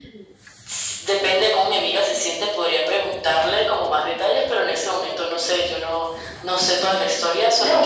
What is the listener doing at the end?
listening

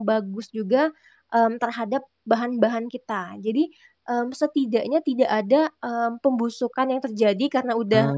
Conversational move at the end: listening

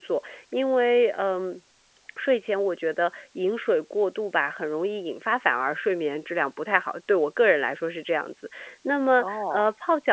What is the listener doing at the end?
listening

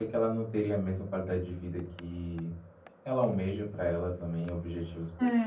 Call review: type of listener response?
taking over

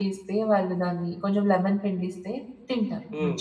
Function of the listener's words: taking over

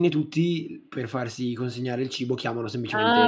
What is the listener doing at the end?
taking over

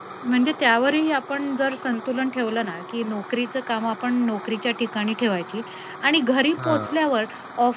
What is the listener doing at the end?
listening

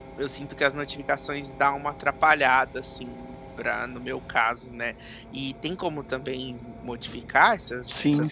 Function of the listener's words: taking over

